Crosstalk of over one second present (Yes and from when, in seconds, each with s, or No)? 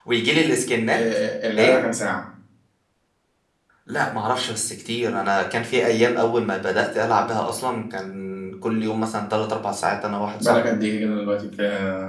No